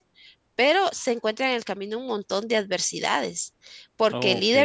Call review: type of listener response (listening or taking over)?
listening